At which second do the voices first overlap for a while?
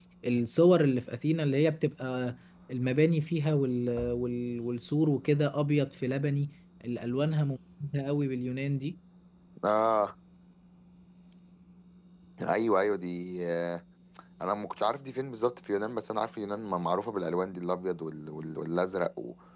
none

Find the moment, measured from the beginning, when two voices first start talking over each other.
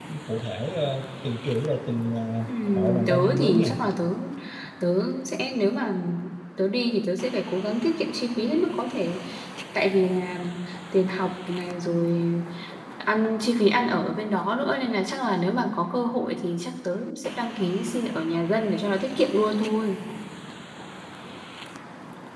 2.4 s

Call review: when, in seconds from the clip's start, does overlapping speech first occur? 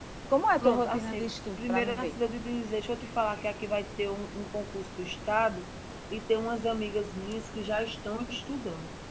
0.6 s

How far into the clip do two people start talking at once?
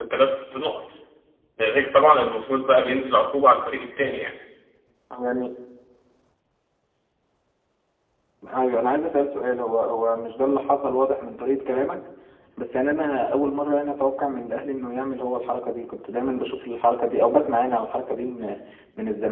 none

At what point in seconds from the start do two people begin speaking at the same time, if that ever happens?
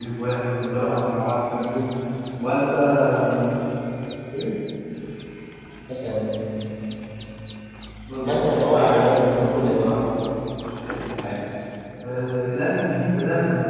8.2 s

